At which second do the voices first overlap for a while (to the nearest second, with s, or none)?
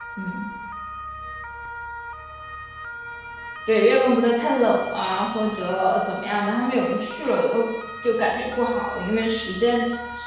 none